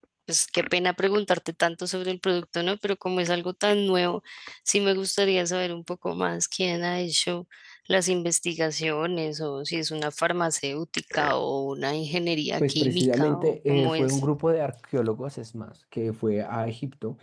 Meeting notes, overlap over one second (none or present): present